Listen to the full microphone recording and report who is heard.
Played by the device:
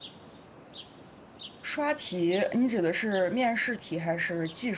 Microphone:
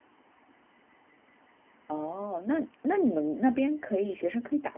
user only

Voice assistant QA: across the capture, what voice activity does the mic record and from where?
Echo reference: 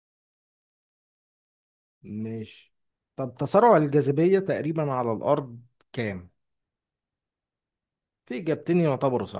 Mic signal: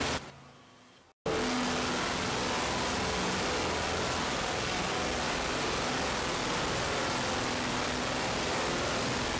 neither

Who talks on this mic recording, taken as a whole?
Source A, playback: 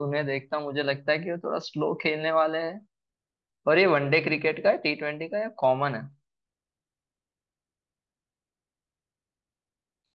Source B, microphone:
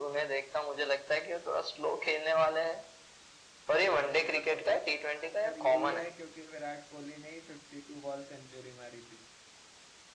both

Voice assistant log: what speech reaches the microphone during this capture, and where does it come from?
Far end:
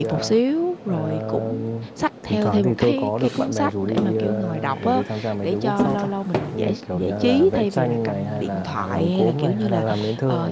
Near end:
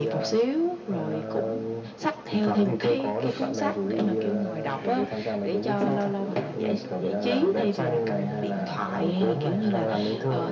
both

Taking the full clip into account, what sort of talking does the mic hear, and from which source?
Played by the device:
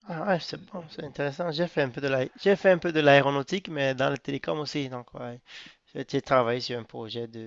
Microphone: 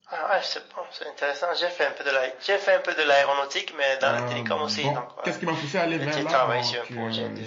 both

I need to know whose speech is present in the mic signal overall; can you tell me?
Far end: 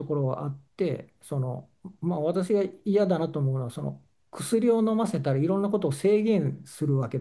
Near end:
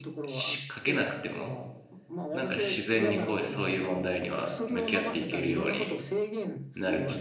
both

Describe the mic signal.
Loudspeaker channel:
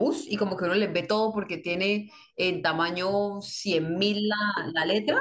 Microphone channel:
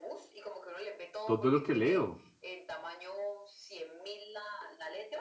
both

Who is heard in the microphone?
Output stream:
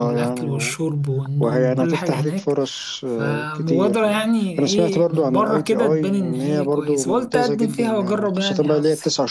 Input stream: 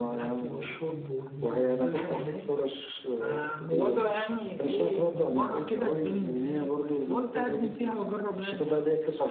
echo only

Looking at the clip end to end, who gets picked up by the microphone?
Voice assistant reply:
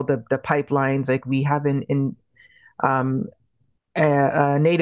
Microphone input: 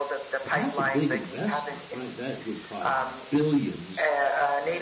both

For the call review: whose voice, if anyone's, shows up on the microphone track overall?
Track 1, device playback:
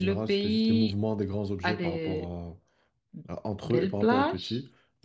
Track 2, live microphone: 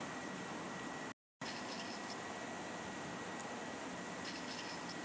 neither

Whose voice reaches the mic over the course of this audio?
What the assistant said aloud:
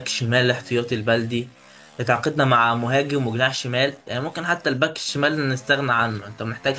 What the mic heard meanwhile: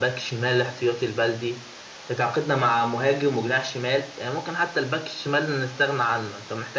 echo only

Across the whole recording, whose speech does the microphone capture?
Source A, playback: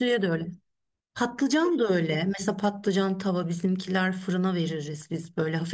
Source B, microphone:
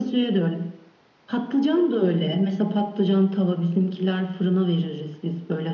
echo only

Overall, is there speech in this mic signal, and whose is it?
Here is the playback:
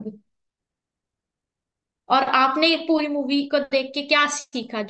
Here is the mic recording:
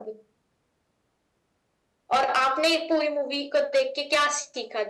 echo only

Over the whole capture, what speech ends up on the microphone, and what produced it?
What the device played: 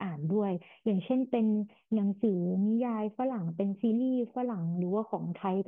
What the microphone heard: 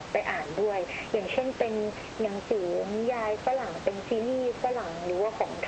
echo only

